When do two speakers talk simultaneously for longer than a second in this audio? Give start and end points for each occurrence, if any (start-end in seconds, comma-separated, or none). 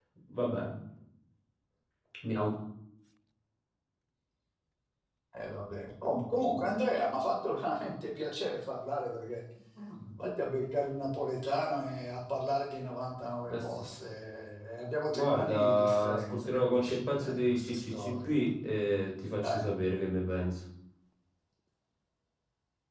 15.1-18.4